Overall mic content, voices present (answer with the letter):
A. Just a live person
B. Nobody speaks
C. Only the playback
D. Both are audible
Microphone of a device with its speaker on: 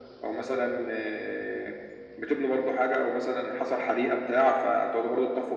C